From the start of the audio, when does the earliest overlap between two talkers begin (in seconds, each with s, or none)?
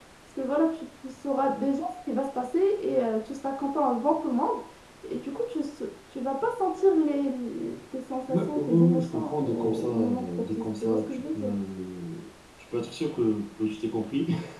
8.3 s